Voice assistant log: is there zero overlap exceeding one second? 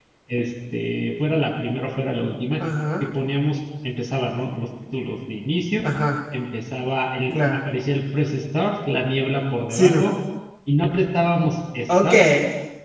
Yes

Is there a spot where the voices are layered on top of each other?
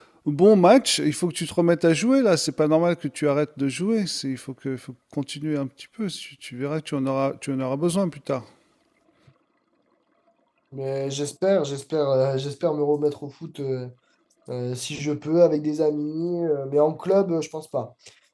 No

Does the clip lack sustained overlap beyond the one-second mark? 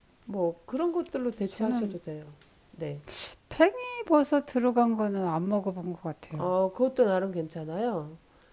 Yes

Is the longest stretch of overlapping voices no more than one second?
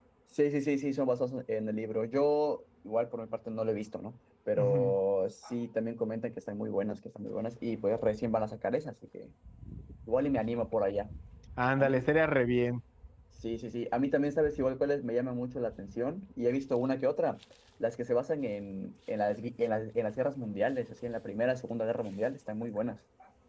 Yes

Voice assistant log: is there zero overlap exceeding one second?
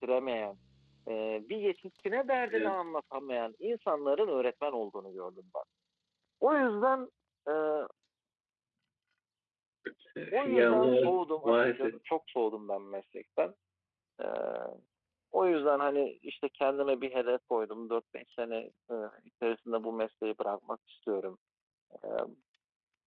No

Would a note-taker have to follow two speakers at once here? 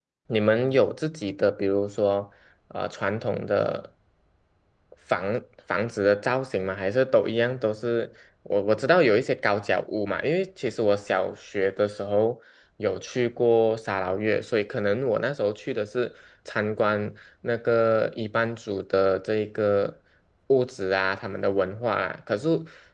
No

